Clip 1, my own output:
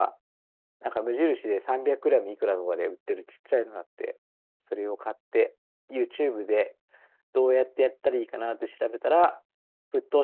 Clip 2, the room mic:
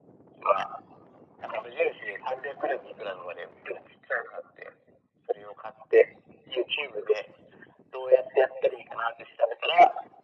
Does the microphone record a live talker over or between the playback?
No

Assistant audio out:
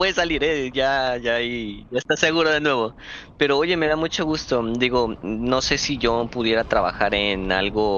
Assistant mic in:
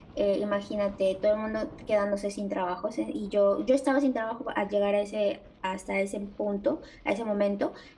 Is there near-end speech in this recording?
Yes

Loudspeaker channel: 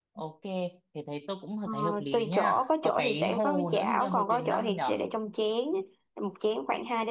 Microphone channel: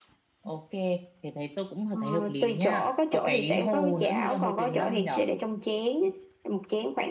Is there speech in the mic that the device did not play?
No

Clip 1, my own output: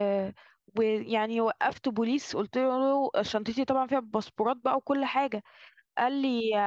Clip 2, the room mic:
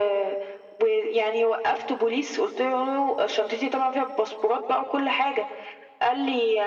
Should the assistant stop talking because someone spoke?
No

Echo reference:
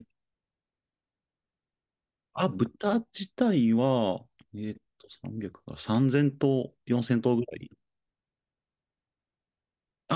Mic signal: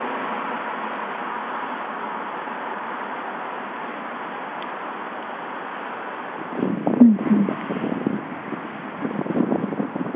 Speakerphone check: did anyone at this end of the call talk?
Yes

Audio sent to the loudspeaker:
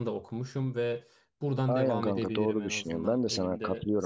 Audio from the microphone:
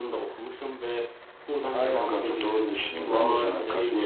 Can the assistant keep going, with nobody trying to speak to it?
No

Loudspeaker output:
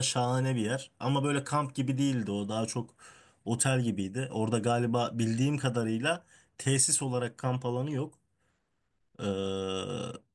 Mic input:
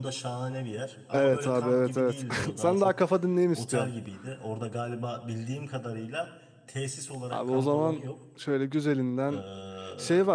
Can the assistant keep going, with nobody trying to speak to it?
No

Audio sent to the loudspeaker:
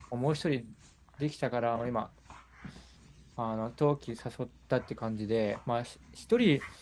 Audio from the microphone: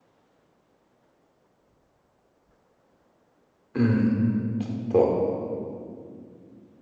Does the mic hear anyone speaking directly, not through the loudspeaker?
Yes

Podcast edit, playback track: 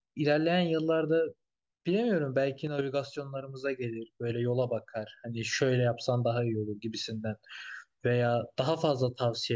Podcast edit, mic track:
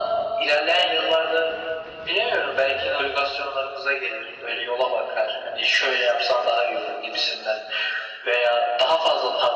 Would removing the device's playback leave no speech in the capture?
Yes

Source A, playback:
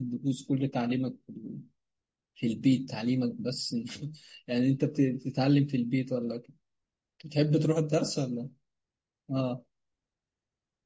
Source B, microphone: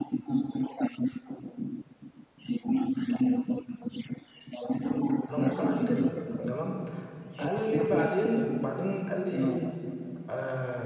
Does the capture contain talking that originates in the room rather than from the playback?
Yes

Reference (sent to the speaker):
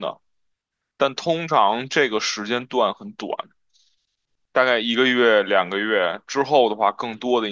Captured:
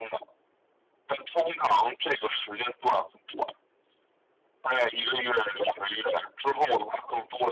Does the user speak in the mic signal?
No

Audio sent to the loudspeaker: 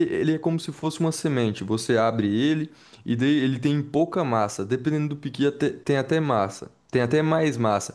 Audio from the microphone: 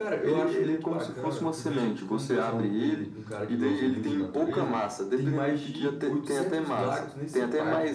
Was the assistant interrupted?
Yes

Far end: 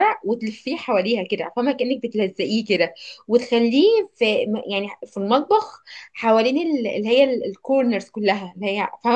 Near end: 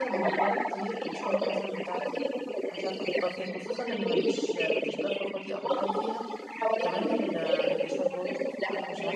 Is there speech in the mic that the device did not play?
Yes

